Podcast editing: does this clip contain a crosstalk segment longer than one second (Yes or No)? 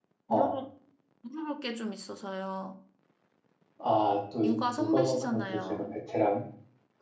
Yes